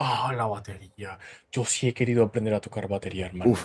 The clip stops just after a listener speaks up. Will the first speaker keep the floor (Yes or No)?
No